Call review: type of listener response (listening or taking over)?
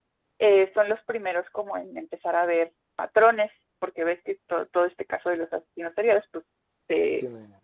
listening